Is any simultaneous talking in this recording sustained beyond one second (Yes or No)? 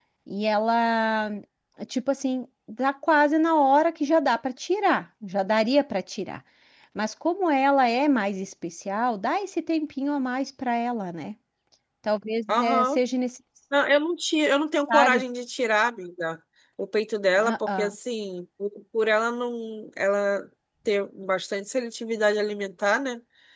No